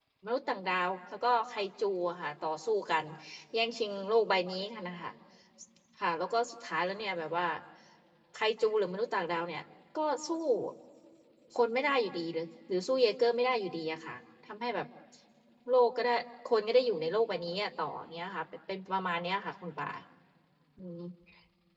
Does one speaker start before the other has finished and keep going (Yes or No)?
No